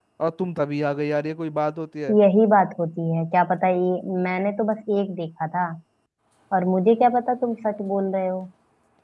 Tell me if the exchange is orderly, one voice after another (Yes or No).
Yes